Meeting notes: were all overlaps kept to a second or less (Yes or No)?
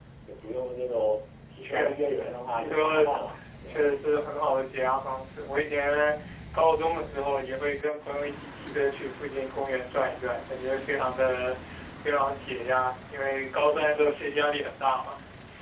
No